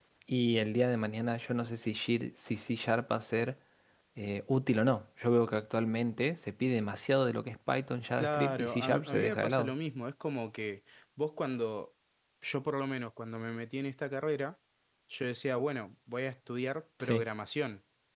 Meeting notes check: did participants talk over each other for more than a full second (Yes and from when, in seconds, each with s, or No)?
Yes, from 8.2 s